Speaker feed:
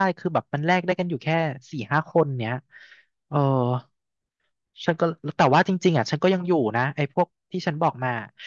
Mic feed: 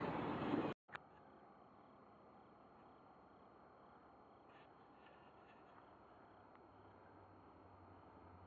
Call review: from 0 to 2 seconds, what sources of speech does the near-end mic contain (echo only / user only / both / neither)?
neither